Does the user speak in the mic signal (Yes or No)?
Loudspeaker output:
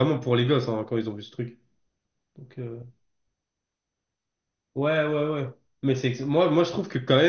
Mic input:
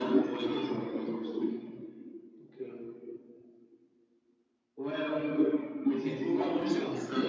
Yes